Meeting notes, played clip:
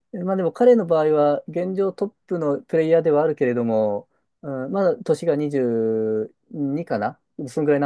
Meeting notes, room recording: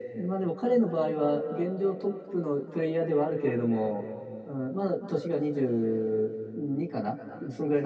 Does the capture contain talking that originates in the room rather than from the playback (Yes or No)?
No